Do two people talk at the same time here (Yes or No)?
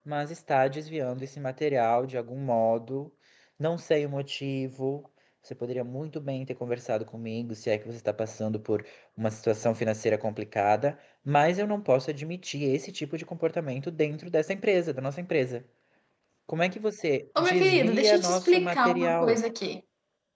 Yes